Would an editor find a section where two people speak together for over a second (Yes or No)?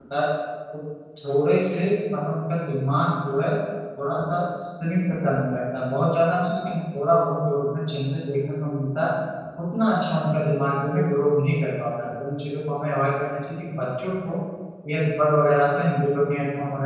No